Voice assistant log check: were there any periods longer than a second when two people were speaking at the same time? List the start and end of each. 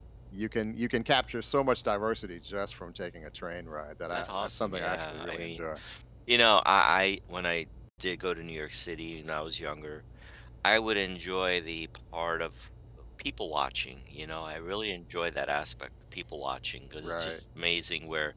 4.1-5.6

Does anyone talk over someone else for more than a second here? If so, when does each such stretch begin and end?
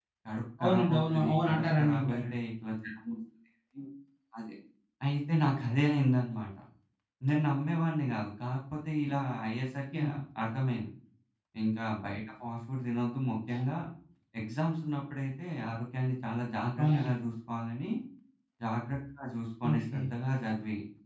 0.6-2.3

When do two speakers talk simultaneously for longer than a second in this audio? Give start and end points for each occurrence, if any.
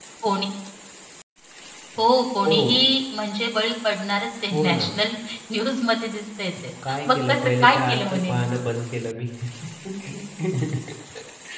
7.1-8.4

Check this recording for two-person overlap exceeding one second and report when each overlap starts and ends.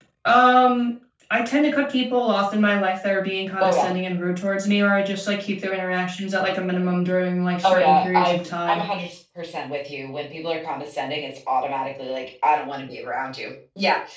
7.6-8.8

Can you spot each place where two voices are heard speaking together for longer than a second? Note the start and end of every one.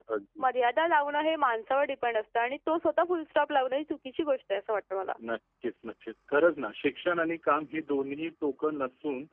none

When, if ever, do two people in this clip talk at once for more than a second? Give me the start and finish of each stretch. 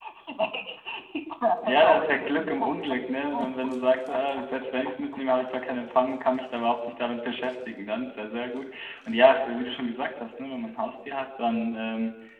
1.6-3.7

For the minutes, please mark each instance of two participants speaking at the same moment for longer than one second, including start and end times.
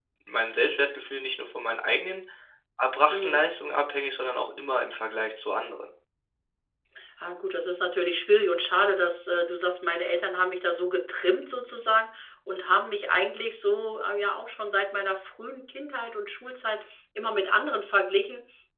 none

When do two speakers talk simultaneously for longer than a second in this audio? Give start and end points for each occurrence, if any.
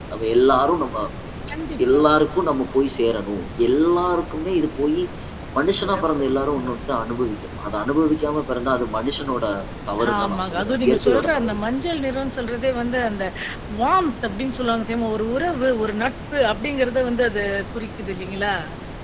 10.2-11.6

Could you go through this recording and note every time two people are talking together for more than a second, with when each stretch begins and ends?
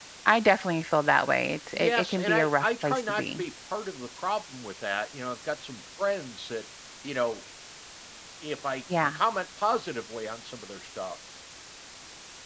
1.7-3.4

